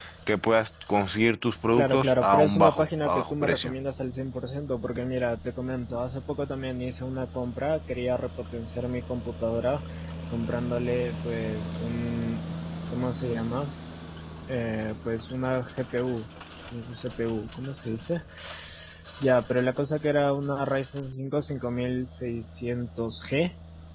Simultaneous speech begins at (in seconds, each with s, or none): 1.8 s